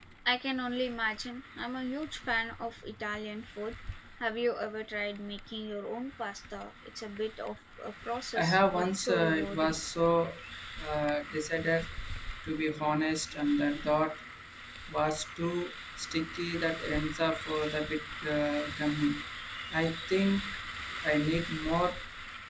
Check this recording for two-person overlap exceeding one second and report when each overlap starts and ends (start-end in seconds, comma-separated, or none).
8.4-9.8